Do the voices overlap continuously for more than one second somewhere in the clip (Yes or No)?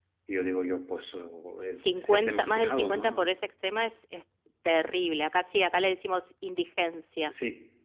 Yes